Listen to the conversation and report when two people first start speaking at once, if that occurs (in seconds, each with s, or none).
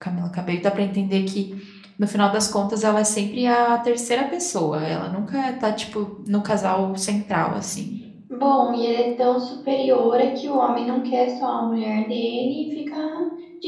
none